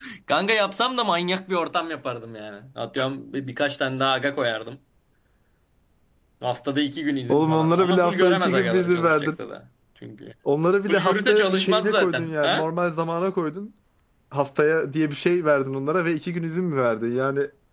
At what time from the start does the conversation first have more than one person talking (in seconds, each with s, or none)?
7.3 s